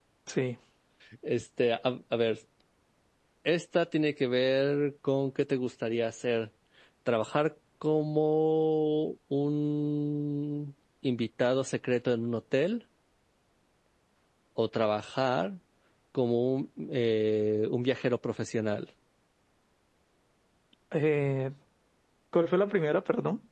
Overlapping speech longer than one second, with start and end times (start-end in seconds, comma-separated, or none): none